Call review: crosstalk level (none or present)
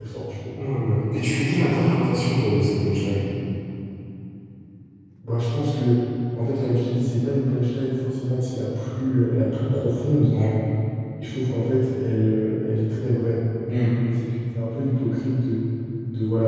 none